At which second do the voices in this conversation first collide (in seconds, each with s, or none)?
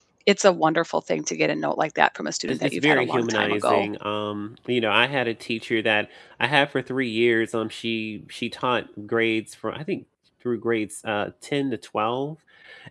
2.5 s